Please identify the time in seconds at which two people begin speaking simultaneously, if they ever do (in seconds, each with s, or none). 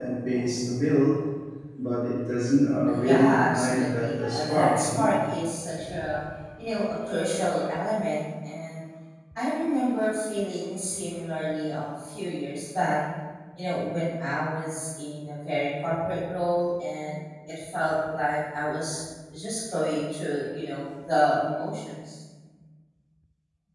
2.9 s